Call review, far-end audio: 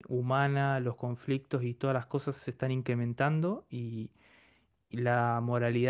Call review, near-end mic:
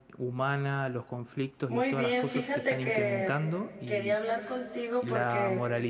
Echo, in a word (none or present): present